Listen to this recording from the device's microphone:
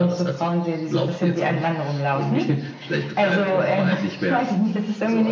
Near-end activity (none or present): none